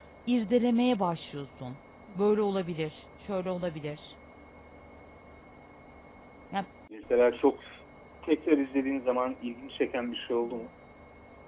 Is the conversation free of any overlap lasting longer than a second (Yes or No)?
Yes